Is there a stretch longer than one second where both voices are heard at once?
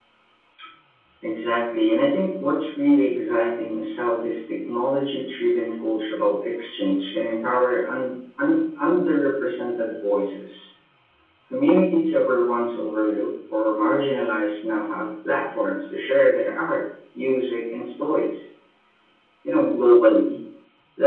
No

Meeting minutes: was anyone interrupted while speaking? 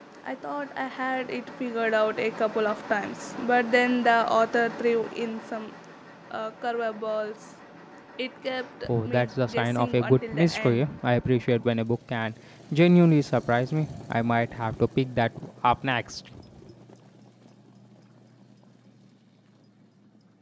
Yes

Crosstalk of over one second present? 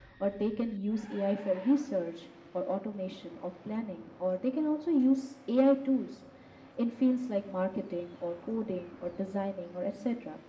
No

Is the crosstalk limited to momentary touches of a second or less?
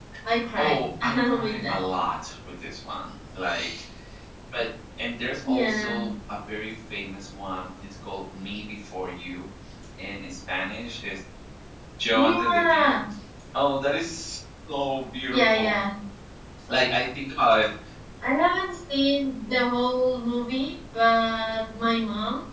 No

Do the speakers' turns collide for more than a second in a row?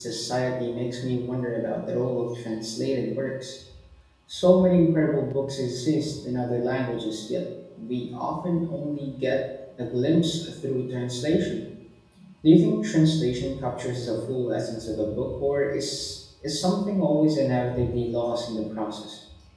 No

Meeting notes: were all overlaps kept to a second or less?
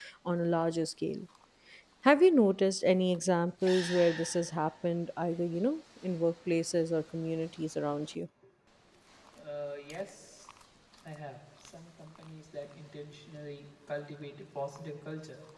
Yes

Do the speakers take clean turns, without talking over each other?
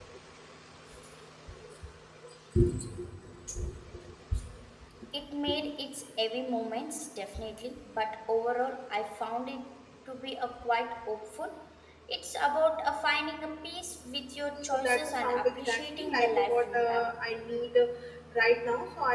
No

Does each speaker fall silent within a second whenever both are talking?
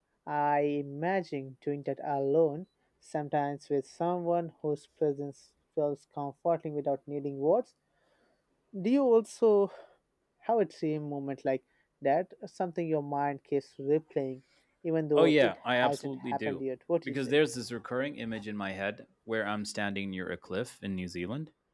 No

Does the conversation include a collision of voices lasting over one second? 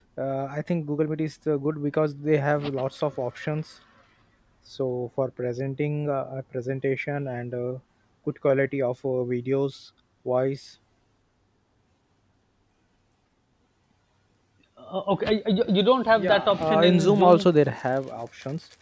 Yes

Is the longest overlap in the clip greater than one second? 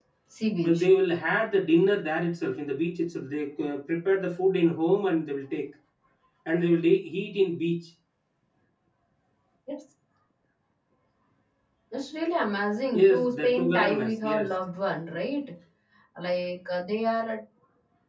Yes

